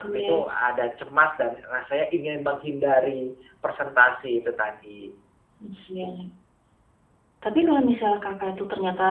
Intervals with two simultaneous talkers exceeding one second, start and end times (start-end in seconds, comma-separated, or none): none